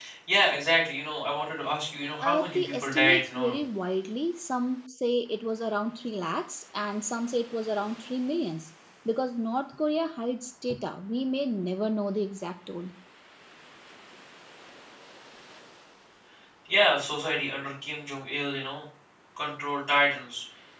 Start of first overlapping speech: 2.2 s

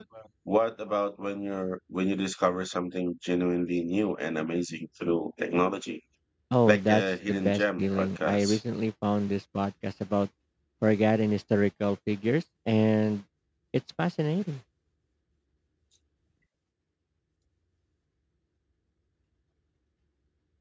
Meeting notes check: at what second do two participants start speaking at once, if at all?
6.7 s

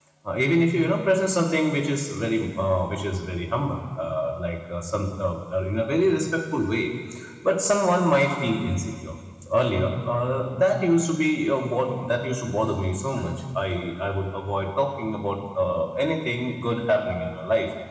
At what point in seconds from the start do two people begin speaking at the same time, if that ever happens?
none

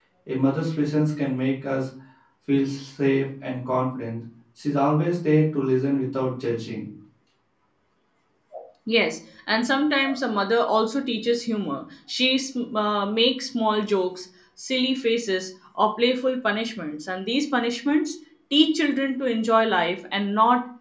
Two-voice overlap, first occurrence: none

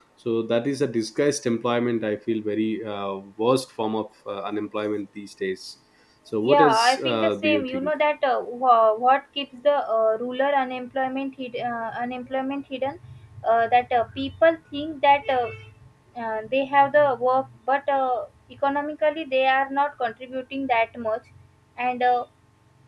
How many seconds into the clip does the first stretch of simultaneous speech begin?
6.4 s

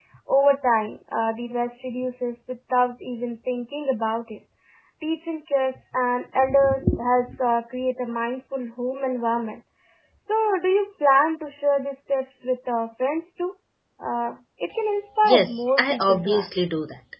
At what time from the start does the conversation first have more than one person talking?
15.2 s

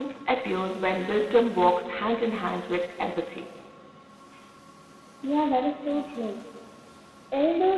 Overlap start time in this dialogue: none

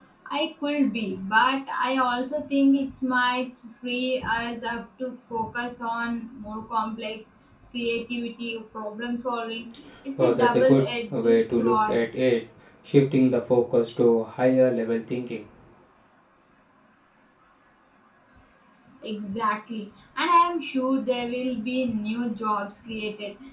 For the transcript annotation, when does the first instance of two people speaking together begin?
10.2 s

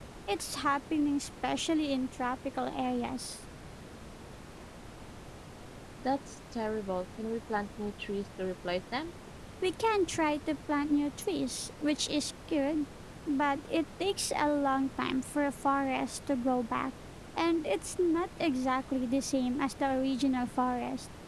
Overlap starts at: none

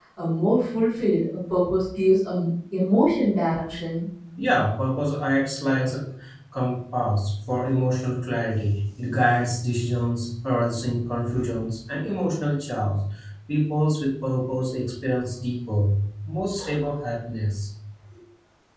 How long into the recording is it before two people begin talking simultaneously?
none

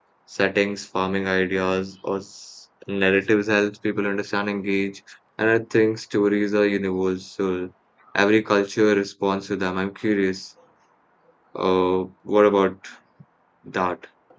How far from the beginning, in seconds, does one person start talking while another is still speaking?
none

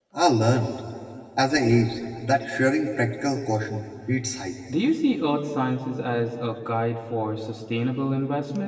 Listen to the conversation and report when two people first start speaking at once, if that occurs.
none

